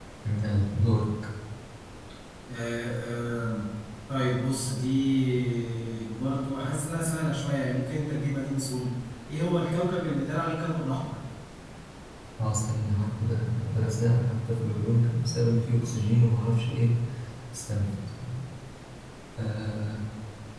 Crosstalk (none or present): none